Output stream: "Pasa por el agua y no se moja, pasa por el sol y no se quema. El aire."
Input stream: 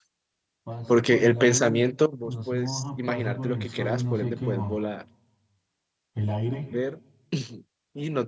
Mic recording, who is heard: both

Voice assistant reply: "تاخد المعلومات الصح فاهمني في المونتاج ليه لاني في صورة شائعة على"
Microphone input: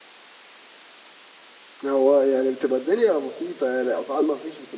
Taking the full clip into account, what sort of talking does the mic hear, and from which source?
user only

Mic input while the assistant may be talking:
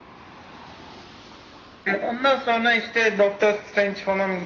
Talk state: echo only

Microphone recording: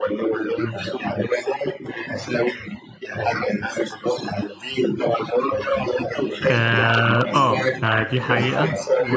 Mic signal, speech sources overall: both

